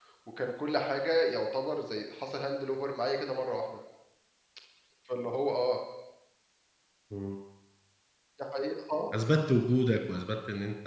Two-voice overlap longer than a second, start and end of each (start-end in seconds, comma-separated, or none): none